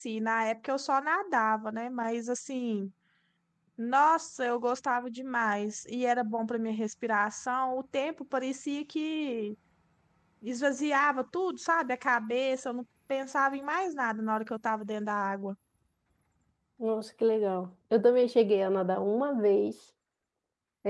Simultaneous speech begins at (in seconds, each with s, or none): none